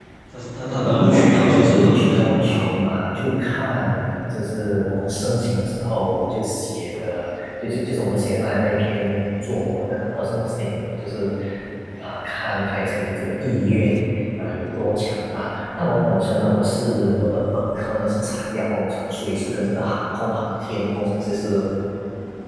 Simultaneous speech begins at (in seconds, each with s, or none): 0.8 s